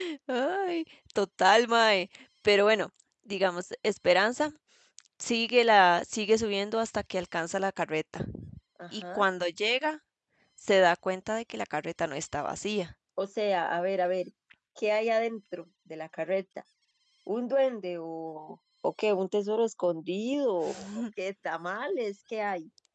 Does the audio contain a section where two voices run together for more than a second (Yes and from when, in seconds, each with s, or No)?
No